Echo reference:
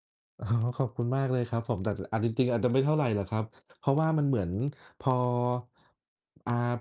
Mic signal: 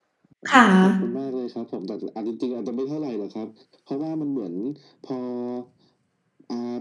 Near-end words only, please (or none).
ค่ะ